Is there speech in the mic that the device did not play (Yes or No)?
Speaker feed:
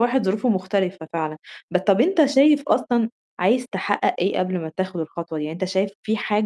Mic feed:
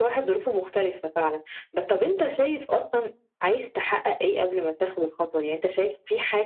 No